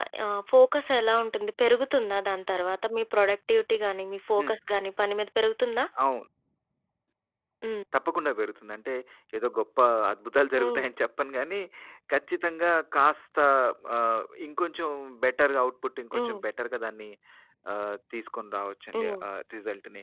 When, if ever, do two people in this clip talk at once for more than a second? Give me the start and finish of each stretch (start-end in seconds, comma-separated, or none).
none